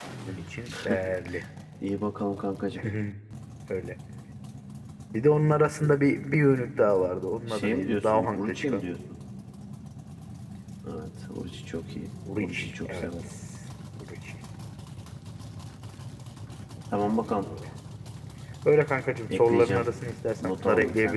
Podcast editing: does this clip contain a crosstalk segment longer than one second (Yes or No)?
Yes